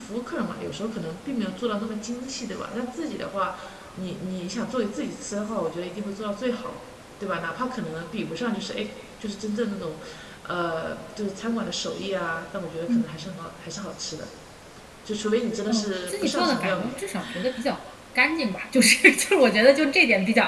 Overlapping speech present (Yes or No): Yes